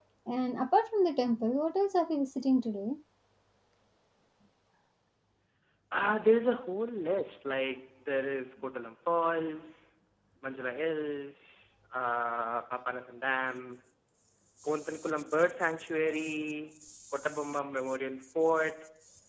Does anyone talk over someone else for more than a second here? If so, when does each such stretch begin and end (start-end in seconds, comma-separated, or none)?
none